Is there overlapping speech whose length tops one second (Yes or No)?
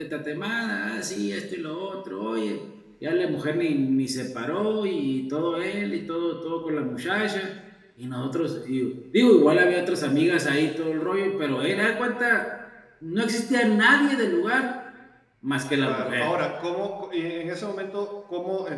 No